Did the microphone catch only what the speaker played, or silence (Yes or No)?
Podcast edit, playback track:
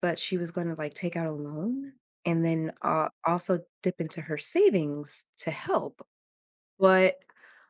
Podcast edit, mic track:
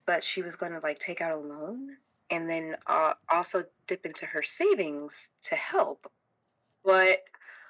Yes